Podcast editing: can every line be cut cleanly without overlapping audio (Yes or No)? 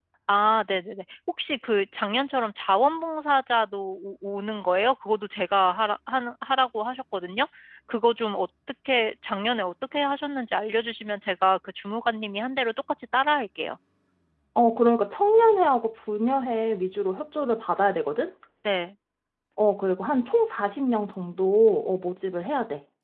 Yes